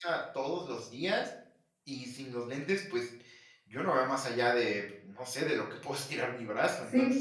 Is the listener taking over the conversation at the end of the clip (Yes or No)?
Yes